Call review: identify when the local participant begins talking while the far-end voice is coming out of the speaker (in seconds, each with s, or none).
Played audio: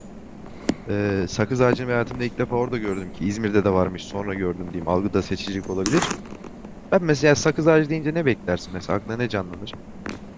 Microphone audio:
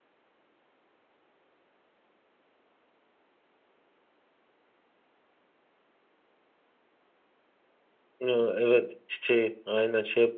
8.2 s